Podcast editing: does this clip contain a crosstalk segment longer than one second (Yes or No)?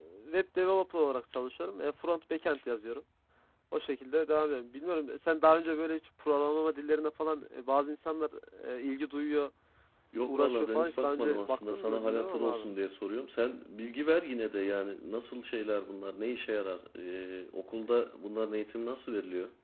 Yes